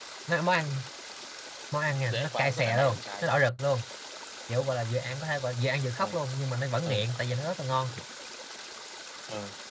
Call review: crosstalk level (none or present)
present